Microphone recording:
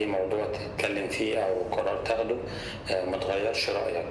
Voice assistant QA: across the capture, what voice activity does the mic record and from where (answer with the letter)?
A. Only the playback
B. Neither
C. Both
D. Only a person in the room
A